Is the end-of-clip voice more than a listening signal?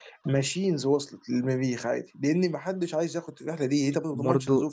Yes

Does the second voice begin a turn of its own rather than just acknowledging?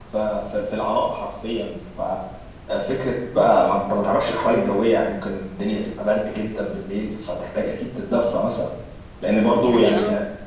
No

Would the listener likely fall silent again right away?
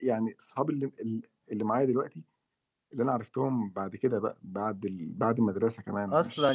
No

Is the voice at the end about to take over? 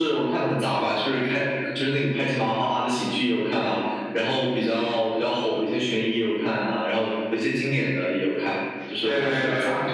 Yes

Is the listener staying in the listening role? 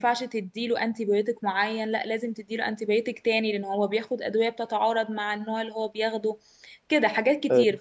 Yes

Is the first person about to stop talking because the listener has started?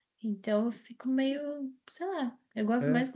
No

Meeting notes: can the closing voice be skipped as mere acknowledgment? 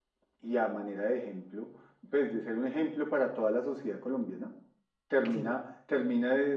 Yes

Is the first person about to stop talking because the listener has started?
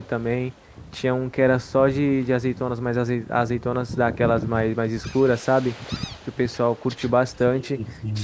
No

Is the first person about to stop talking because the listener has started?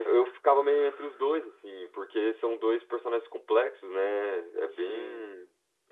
No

